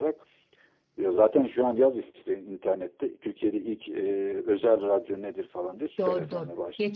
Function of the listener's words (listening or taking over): taking over